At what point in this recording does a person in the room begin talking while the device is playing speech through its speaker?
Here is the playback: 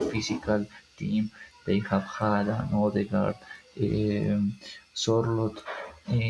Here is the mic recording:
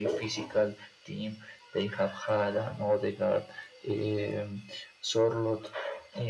none

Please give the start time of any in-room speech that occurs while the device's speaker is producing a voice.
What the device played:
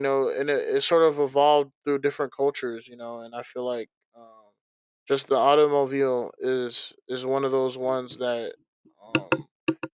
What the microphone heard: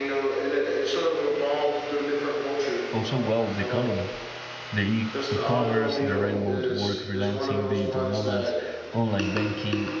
2.9 s

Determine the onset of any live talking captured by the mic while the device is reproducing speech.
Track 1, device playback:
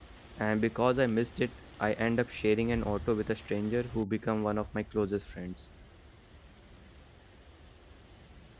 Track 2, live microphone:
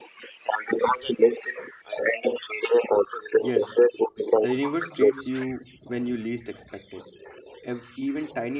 3.5 s

